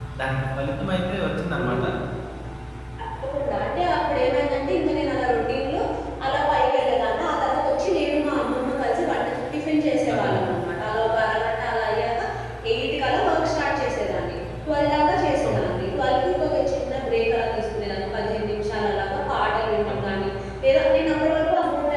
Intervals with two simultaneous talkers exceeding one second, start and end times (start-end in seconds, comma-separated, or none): none